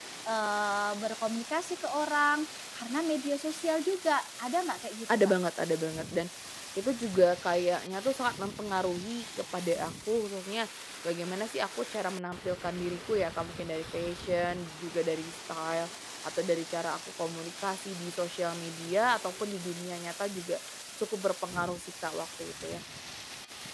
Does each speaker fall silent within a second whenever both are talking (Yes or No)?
Yes